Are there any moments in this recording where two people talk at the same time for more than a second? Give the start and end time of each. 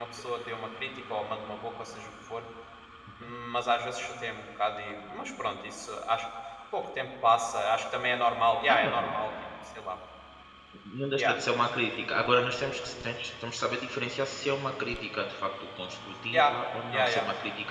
none

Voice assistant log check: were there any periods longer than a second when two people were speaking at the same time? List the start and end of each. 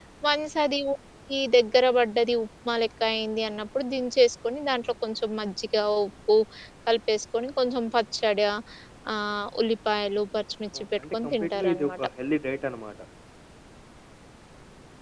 10.8-12.1

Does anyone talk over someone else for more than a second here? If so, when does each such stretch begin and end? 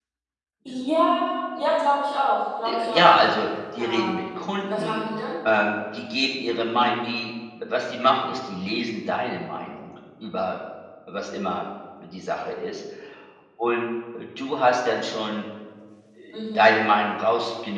3.8-5.0

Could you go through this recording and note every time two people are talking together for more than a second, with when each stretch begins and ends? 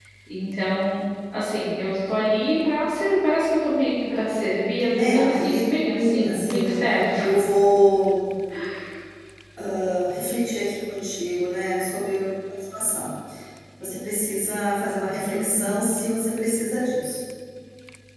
5.0-6.8

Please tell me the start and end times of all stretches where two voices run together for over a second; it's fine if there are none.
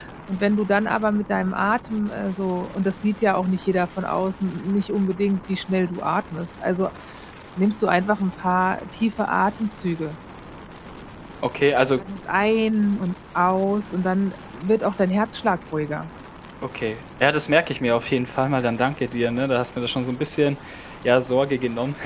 none

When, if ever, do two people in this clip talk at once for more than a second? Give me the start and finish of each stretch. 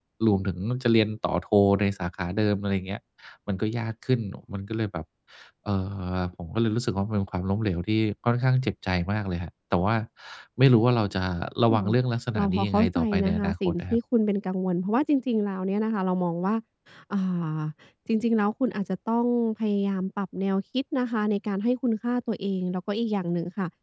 12.3-14.0

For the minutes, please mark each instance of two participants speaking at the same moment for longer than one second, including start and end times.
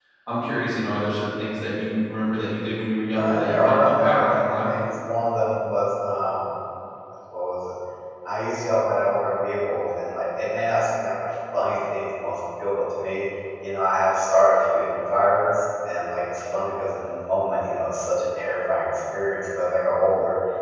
3.2-4.7

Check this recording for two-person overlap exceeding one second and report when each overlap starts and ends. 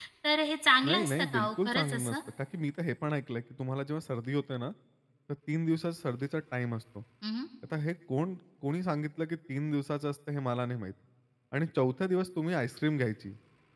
0.9-2.2

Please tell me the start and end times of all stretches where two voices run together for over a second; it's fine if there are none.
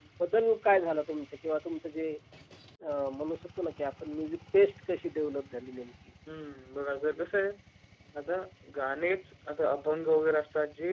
none

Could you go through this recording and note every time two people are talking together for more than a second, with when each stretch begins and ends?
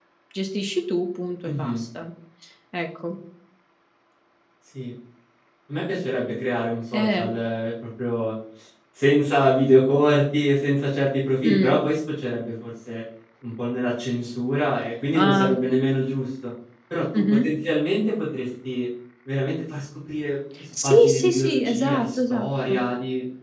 20.8-22.8

